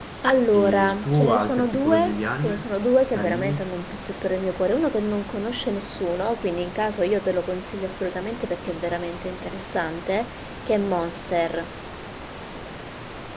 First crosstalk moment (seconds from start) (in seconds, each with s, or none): 0.5 s